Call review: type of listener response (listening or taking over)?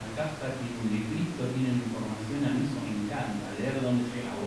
listening